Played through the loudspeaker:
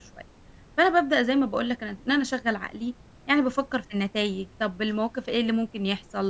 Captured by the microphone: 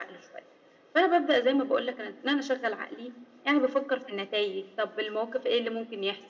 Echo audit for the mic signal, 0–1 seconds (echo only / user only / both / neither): echo only